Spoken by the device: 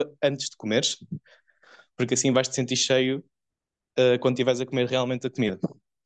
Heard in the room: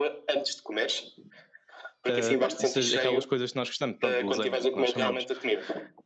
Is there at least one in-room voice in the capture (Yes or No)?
Yes